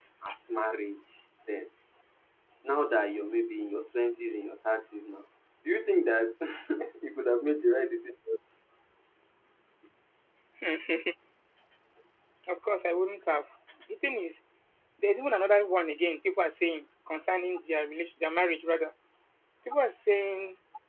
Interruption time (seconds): none

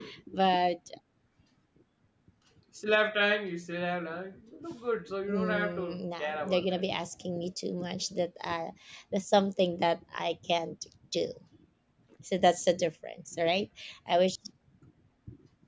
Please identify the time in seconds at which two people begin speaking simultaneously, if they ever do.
5.3 s

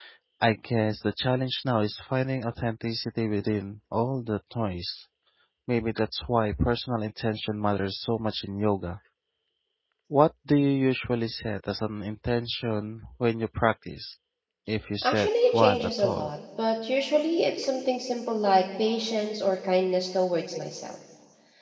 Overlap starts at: 15.0 s

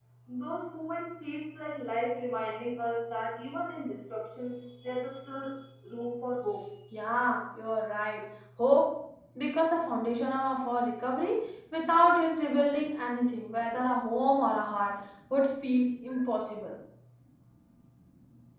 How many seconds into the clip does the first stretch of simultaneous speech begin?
none

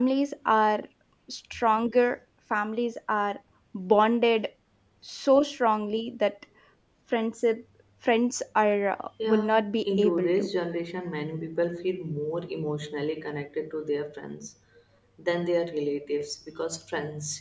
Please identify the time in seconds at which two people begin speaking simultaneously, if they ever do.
9.2 s

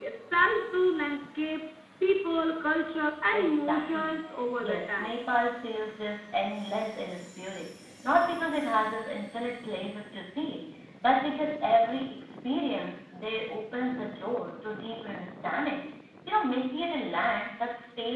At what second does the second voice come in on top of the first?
3.3 s

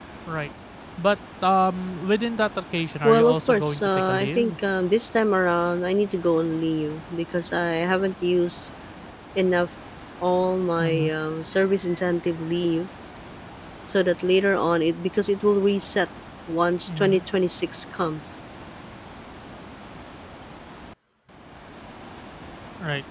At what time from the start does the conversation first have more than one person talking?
3.0 s

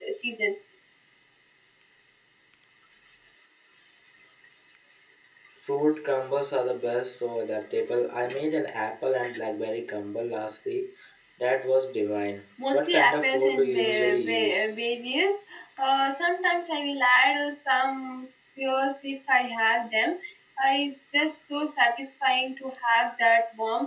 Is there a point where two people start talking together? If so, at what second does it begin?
12.6 s

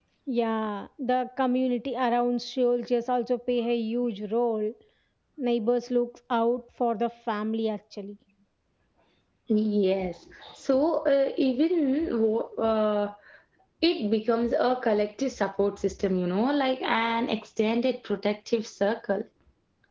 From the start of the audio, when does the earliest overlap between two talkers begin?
none

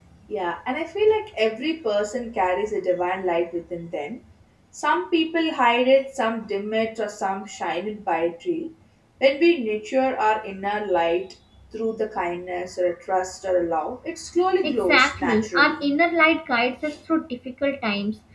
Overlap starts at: 14.6 s

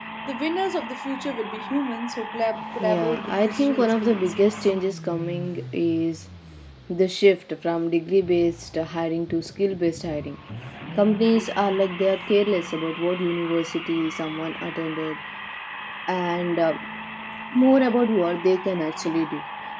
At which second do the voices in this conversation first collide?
2.8 s

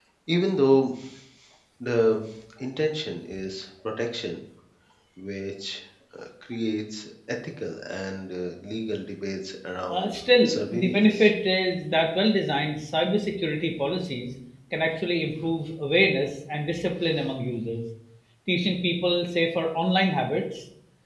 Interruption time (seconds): 9.9 s

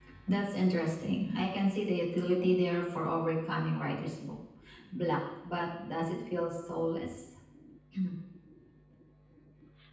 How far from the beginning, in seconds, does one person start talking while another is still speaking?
none

